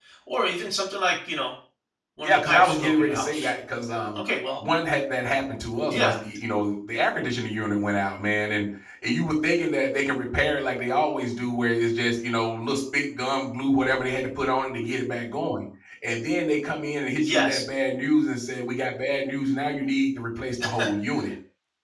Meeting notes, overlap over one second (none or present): present